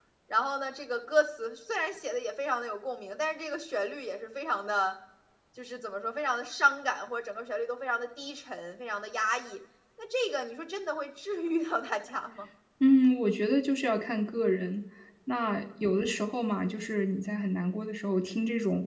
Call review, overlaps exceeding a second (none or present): none